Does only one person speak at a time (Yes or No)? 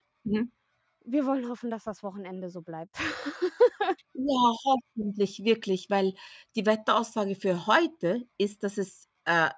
Yes